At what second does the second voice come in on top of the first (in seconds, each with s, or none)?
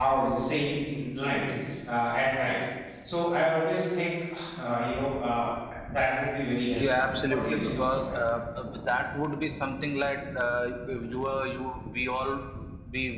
6.8 s